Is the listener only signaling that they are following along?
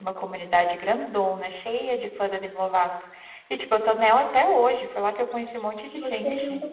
No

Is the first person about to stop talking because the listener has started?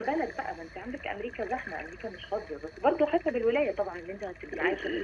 Yes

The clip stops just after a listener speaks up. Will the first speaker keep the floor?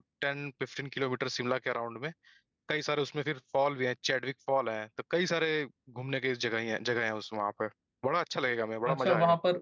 No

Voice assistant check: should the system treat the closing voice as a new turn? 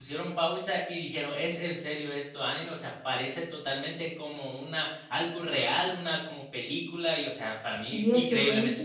Yes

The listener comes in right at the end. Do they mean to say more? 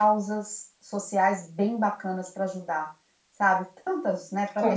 No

